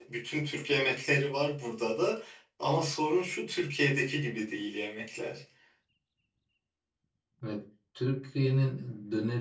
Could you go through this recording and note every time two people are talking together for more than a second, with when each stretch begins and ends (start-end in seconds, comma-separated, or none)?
none